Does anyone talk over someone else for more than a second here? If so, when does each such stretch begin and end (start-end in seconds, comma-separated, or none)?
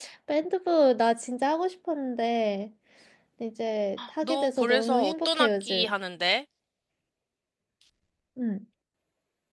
4.2-5.9